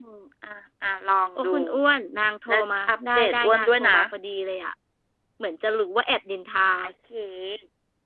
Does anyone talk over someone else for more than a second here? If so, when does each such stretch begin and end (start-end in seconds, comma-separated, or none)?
2.5-4.0